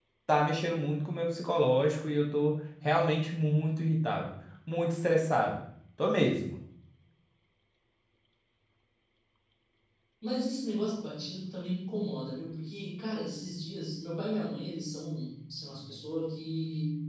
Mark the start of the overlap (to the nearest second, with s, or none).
none